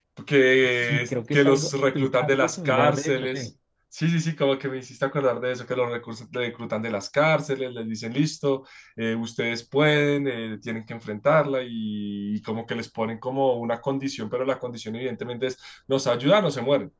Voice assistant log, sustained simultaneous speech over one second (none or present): present